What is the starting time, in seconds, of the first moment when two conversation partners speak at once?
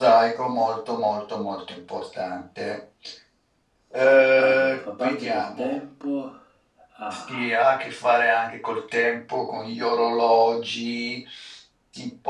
4.4 s

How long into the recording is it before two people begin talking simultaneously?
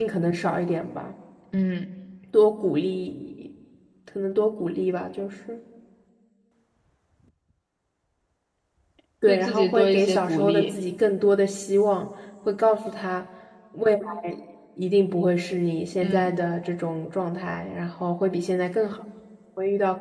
9.3 s

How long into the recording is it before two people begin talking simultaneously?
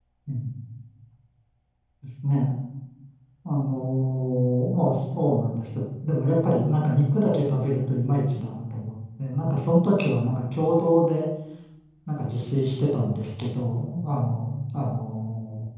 none

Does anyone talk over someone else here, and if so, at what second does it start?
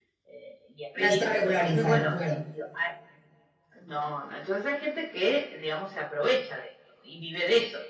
1.0 s

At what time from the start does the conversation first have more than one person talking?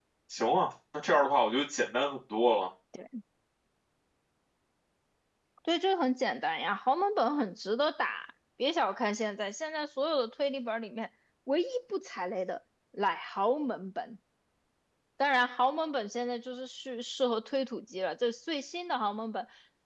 none

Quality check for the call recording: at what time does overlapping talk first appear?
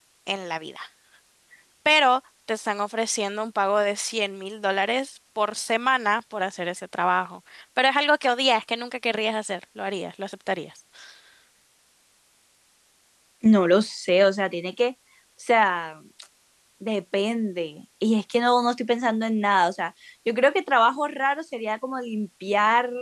none

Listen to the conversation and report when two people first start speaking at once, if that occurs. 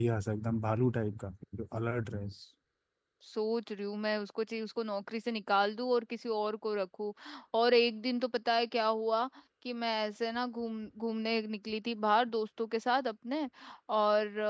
none

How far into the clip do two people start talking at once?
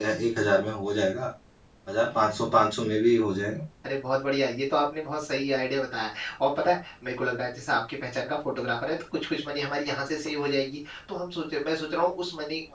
none

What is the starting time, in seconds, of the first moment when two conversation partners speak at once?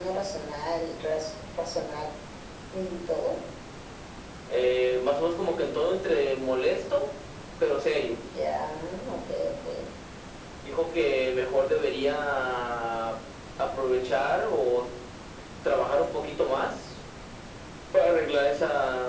none

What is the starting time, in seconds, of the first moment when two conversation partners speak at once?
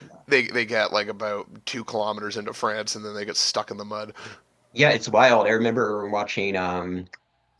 none

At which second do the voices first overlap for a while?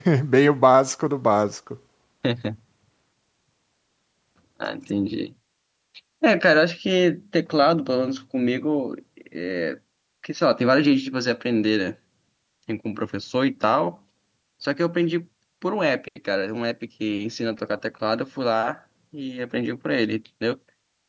none

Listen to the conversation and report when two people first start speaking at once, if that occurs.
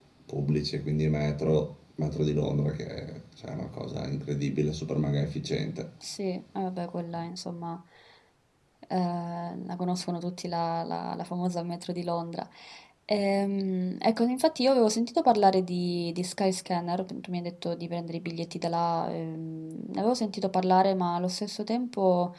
none

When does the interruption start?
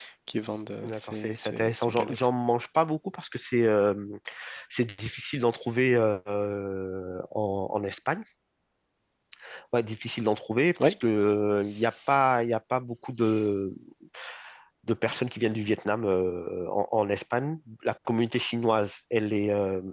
0.8 s

